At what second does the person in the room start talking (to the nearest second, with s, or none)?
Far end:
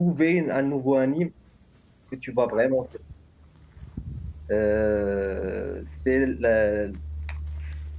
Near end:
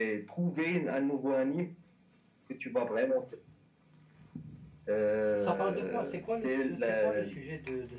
5 s